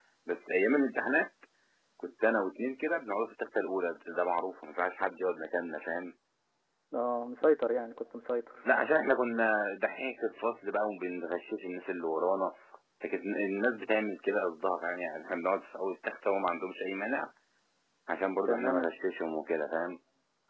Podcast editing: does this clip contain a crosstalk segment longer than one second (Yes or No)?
No